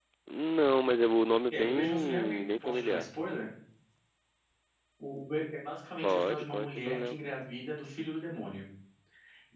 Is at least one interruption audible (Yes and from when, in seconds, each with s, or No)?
Yes, from 1.6 s